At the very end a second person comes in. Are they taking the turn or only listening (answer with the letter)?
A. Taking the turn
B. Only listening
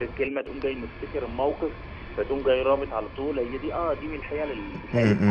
B